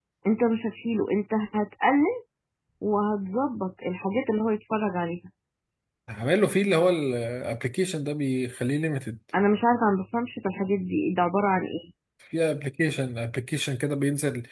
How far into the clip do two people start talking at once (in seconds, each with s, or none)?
none